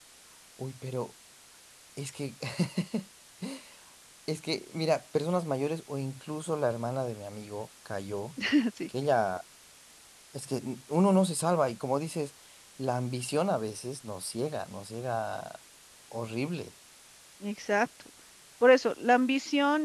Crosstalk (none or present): none